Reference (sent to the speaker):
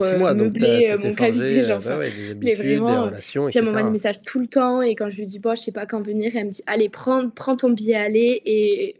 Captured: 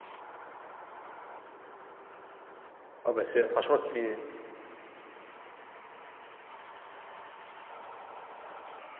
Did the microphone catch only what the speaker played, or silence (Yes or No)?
No